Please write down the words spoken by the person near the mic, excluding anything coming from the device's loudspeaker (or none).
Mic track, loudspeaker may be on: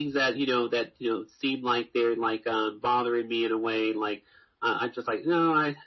none